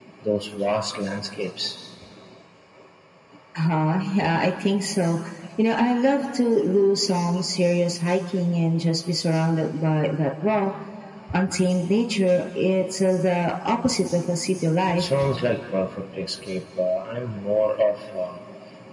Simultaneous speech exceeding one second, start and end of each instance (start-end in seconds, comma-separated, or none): none